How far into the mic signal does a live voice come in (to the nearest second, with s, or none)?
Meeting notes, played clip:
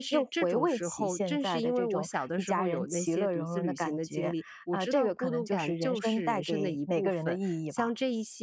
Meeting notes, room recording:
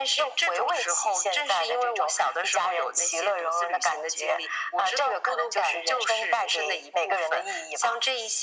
none